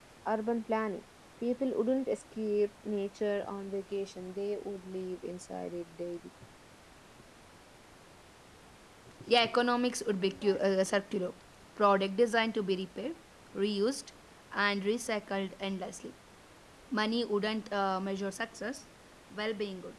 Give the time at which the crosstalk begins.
none

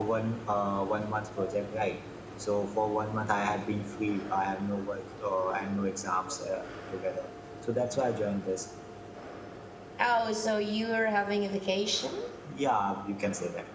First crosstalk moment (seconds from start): none

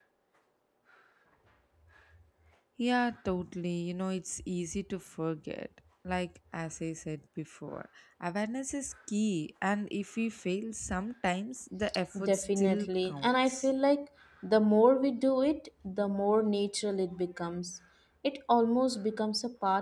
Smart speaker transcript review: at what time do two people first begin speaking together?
12.2 s

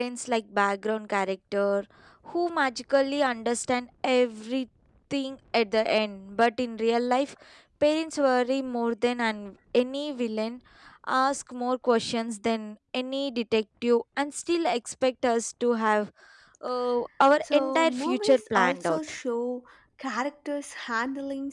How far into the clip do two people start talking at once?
17.4 s

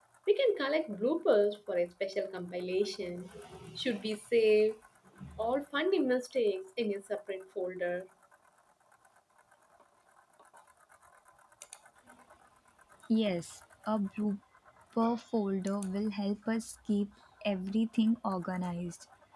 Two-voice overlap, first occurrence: none

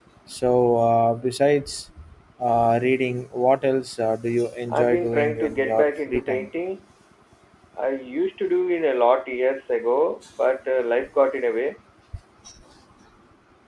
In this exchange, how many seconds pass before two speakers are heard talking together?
4.7 s

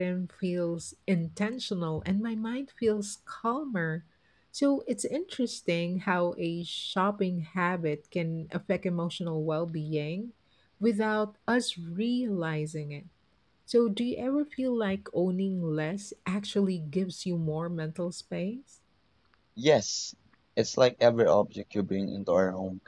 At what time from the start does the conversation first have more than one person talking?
none

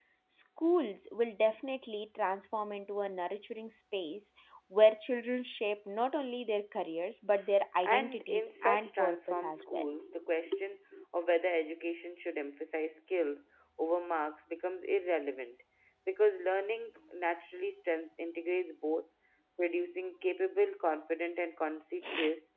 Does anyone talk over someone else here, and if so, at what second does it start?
7.8 s

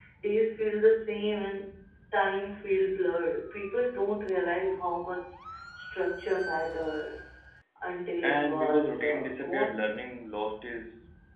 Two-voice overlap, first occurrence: 8.2 s

